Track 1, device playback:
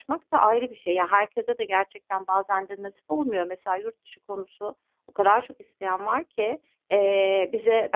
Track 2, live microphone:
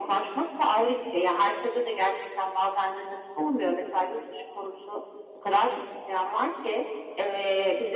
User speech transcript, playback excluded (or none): none